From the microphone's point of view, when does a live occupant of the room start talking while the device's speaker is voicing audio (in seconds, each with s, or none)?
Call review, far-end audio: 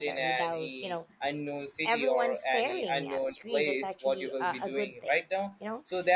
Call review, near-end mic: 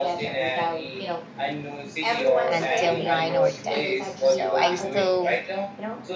2.5 s